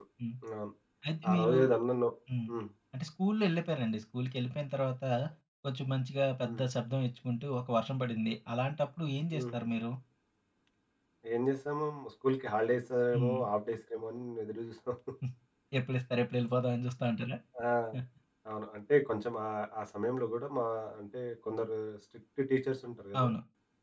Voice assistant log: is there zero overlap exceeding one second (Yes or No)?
Yes